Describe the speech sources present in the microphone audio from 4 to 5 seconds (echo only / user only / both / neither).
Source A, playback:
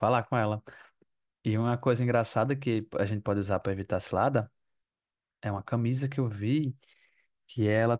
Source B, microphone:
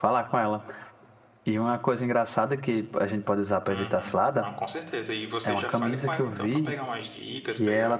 both